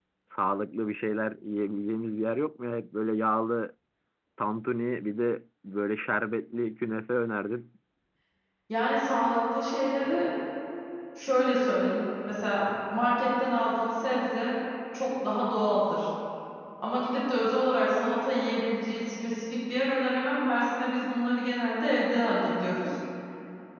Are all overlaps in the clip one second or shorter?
Yes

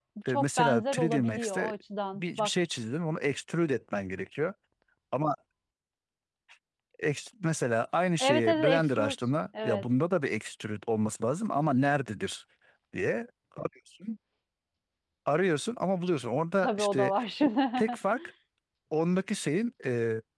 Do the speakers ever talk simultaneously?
Yes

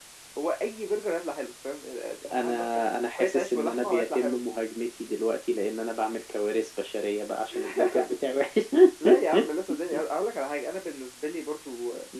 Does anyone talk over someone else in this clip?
Yes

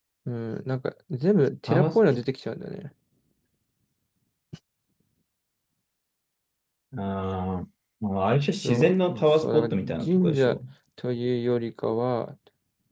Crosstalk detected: Yes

